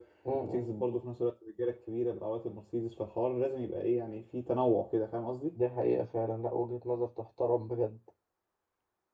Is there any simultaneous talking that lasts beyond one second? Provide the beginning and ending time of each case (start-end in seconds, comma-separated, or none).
none